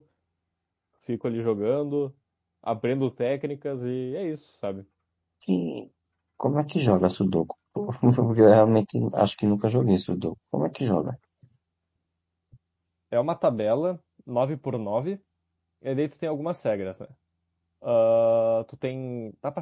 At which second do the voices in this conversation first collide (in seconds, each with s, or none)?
none